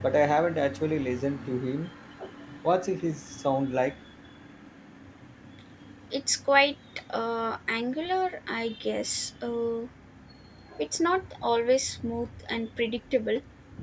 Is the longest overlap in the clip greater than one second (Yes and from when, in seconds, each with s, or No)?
No